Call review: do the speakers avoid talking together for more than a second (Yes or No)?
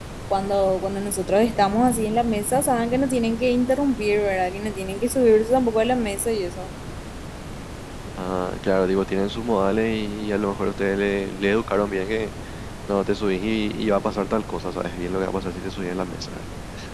Yes